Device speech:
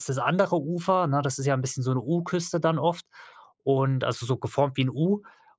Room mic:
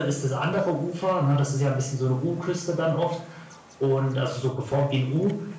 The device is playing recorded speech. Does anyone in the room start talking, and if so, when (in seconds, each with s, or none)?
none